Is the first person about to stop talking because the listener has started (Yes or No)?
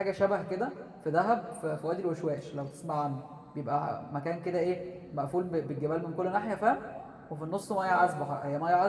No